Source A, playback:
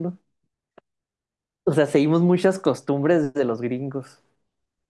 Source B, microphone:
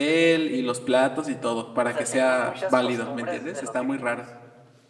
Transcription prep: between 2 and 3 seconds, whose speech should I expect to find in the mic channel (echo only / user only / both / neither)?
both